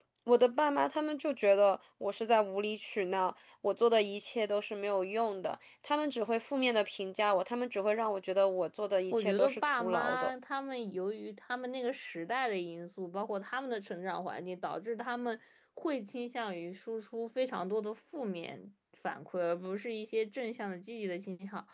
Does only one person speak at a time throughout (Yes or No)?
No